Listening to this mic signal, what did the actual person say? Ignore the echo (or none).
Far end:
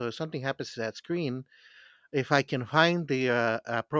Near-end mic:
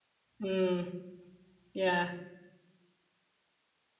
Mm, yeah.